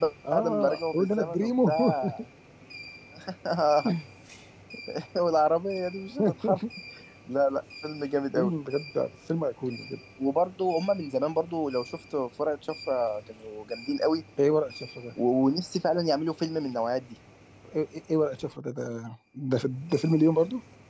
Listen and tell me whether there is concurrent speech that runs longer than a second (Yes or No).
Yes